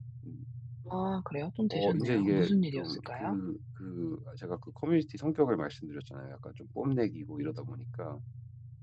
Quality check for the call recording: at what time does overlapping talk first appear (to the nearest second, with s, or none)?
2 s